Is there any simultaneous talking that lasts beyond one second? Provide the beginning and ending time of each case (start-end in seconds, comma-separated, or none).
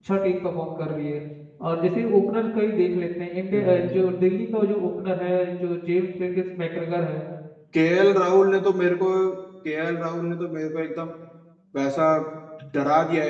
none